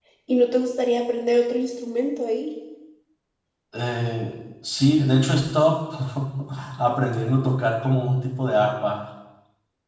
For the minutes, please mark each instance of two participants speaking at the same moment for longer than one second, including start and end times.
none

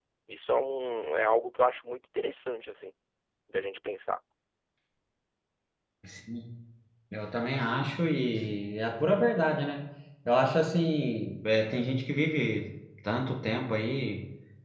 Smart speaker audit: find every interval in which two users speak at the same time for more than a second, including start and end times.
none

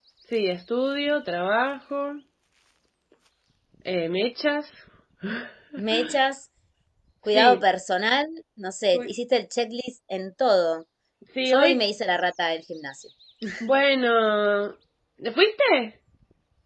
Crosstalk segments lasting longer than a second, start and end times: none

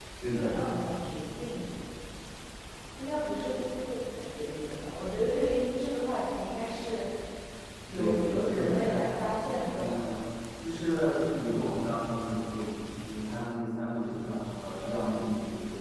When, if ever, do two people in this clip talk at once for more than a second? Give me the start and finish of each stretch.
7.9-9.9

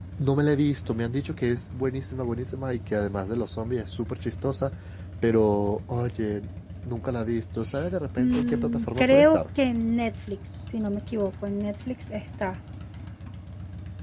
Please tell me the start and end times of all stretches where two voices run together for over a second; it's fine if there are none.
8.2-9.4

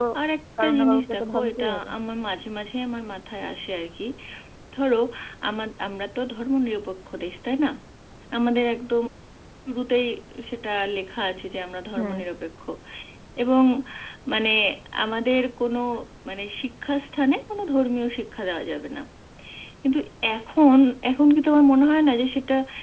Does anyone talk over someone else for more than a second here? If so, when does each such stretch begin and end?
0.6-1.9

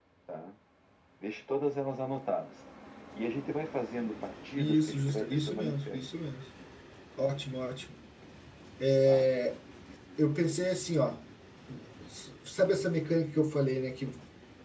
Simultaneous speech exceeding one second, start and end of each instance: 4.6-6.0

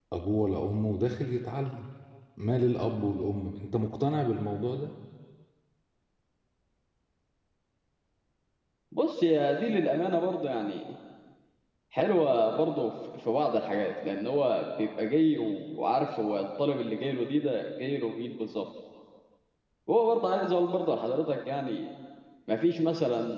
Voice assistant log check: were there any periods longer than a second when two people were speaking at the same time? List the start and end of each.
none

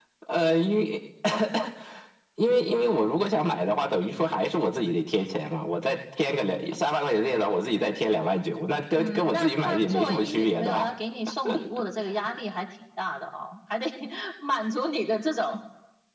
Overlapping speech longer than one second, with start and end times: 8.9-10.9

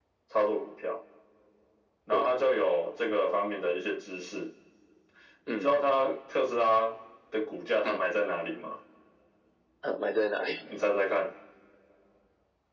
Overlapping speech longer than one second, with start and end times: none

